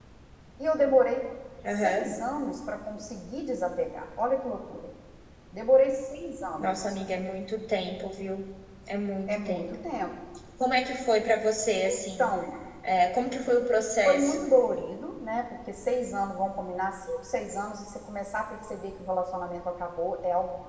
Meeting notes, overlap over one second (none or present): none